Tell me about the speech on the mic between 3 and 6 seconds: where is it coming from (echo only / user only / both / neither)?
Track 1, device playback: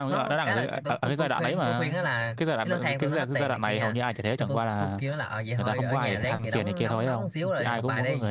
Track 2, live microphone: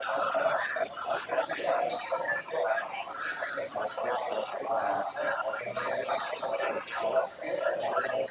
echo only